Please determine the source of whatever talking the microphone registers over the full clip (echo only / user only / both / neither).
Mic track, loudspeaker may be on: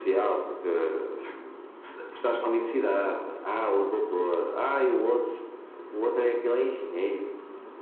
echo only